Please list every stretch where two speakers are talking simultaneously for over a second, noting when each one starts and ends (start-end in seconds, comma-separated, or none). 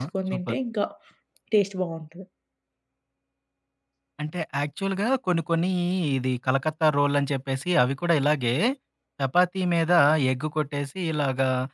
none